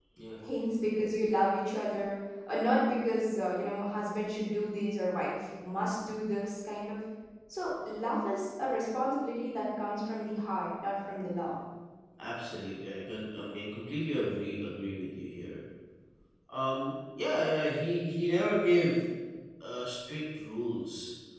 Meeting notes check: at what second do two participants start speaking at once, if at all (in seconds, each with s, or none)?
none